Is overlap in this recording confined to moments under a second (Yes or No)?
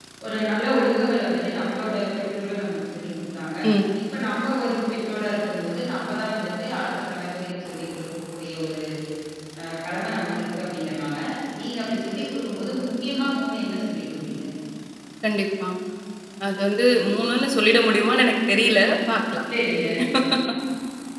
Yes